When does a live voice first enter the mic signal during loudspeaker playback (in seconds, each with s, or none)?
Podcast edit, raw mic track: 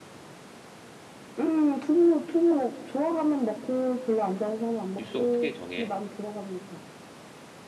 5.0 s